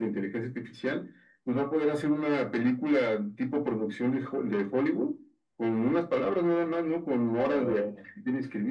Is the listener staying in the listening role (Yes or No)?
Yes